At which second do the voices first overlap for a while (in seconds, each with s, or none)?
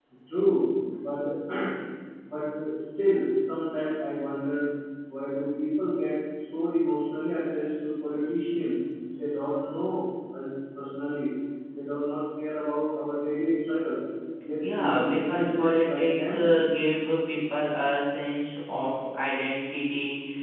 14.6 s